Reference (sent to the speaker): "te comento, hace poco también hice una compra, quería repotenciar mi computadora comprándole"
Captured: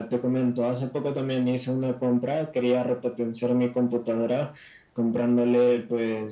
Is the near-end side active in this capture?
No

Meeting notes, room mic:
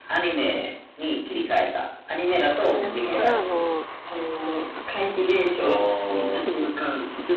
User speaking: Yes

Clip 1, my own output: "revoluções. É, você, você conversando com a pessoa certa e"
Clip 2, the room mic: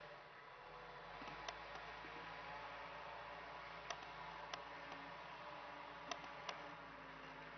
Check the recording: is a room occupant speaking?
No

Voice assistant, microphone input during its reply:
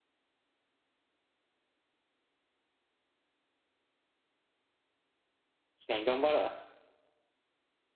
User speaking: Yes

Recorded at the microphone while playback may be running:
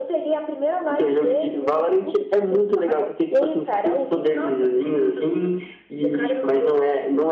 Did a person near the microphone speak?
No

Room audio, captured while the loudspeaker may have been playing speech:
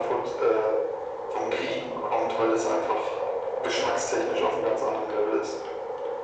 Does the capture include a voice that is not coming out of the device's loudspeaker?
No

